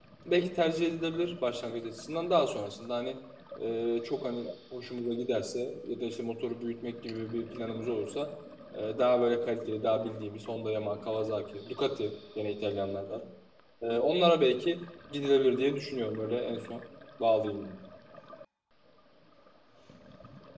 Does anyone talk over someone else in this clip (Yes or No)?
No